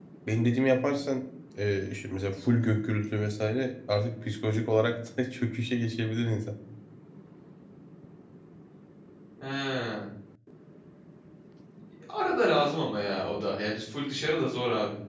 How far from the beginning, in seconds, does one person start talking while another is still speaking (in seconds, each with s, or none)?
none